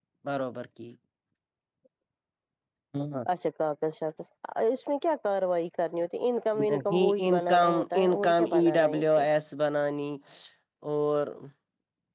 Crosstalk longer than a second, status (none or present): present